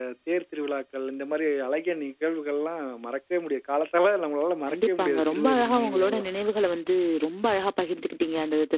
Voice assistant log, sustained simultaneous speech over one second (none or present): present